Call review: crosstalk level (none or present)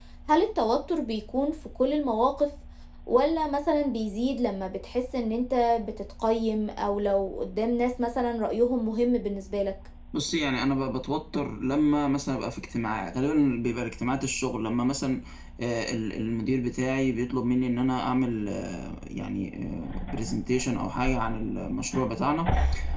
none